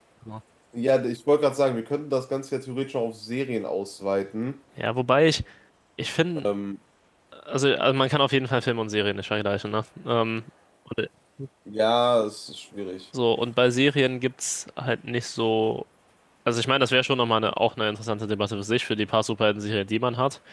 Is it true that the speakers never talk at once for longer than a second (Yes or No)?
Yes